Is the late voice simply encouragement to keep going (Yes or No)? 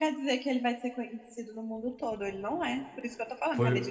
No